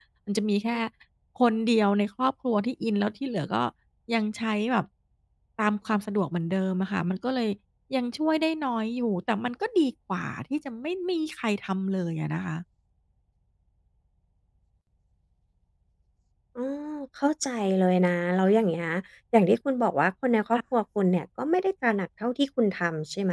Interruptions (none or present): none